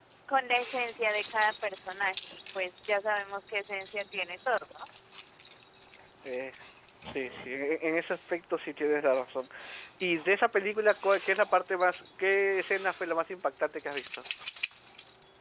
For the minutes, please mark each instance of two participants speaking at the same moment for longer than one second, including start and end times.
none

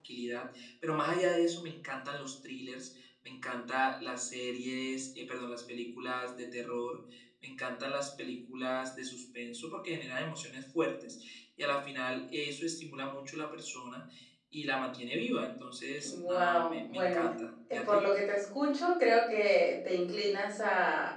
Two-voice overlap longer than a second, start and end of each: 16.0-17.3

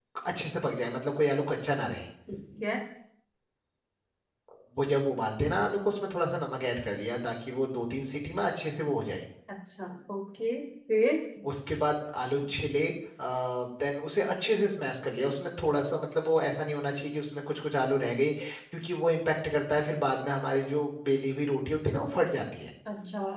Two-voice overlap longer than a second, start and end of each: none

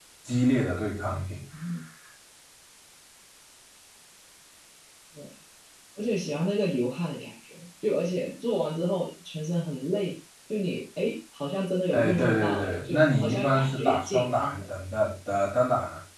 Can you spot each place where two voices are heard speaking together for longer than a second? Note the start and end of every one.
11.9-14.6

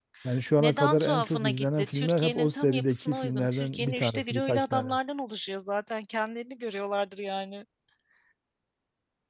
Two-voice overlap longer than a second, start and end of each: 0.6-5.0

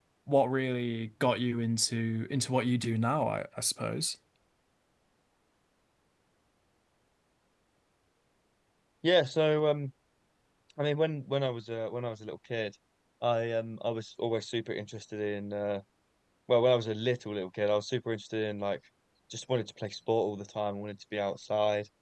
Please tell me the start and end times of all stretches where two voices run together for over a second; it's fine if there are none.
none

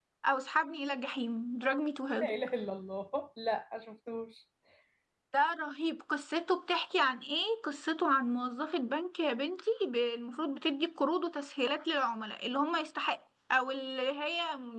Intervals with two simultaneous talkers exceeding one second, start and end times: none

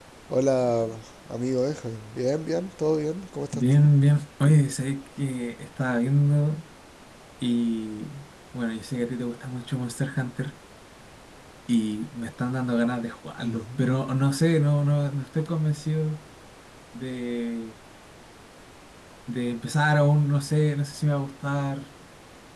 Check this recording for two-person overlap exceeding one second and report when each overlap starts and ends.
none

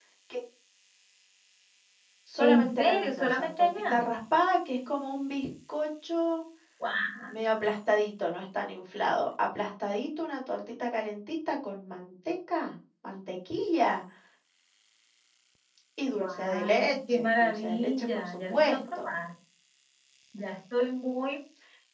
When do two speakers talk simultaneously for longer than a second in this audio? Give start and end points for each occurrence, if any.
2.4-4.0, 16.1-19.1

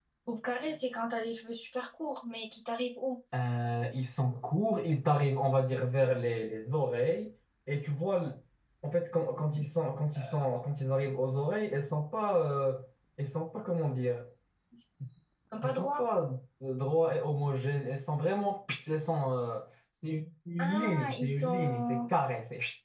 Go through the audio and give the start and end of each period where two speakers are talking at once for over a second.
20.6-22.0

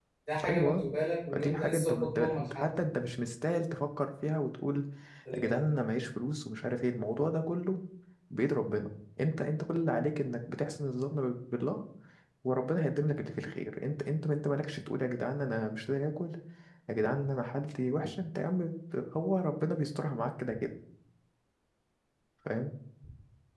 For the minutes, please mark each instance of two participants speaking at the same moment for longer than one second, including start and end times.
1.3-2.8

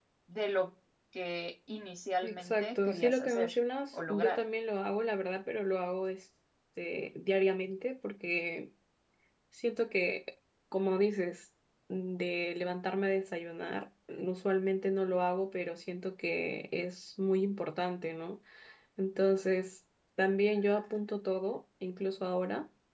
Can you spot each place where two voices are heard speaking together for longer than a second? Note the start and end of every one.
2.2-3.5

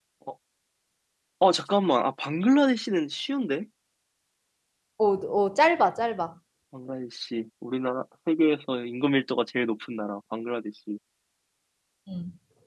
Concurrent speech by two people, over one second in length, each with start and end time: none

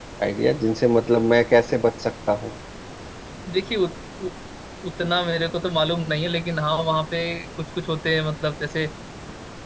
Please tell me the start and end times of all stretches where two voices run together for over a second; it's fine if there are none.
none

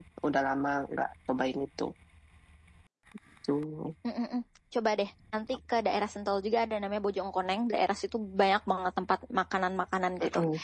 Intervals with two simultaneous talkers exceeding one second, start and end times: none

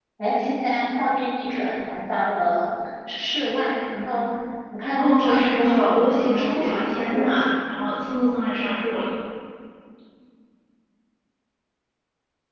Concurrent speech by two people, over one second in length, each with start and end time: 4.9-7.3

